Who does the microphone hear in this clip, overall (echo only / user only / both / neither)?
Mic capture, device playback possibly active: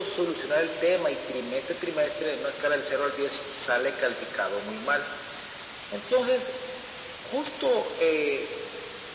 echo only